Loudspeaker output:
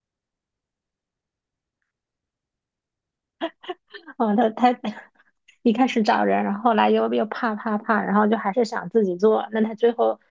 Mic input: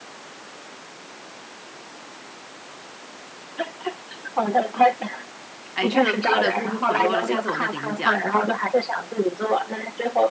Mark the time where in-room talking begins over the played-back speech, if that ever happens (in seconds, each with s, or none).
5.7 s